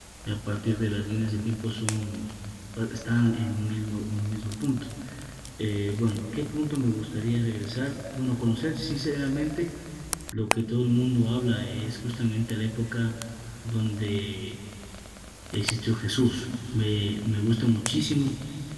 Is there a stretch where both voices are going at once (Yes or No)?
No